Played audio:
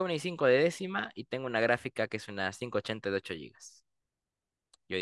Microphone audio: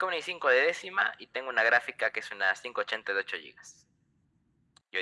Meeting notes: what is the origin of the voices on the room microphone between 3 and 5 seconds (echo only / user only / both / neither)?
echo only